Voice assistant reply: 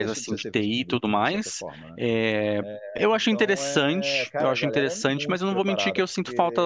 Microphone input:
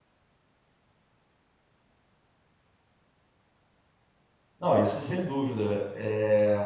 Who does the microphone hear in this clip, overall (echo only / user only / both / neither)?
user only